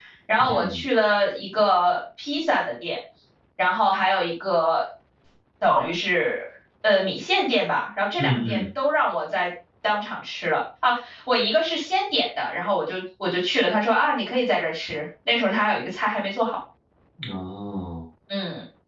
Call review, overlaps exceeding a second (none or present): none